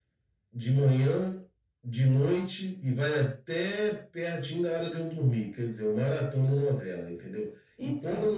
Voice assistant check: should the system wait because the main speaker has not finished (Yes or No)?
Yes